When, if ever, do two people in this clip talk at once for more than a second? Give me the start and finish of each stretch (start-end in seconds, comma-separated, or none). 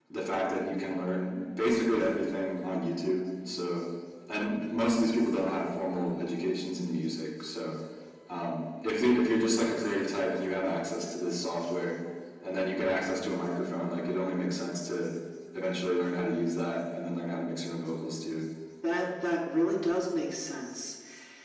none